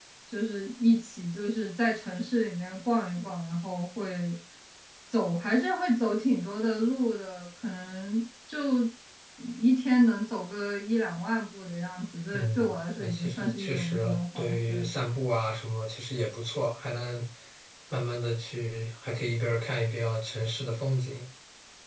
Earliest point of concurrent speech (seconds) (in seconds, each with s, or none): 12.3 s